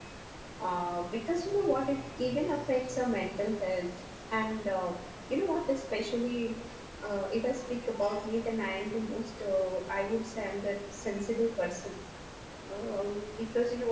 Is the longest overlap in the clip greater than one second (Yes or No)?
No